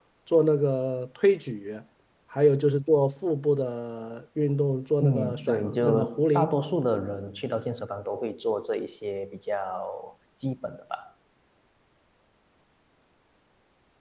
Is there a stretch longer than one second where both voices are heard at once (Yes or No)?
Yes